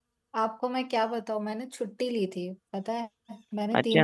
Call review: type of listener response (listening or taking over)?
listening